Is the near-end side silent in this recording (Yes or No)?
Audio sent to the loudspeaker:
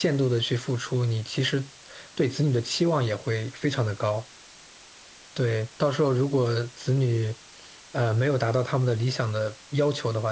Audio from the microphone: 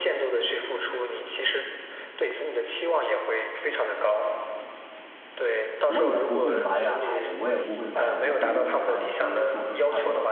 No